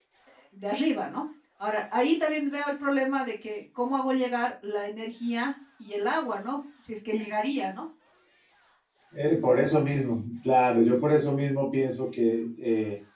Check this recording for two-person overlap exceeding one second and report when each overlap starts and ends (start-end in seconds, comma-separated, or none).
none